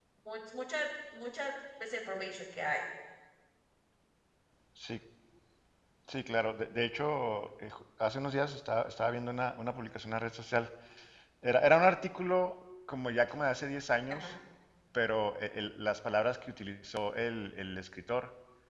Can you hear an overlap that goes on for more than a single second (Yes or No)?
No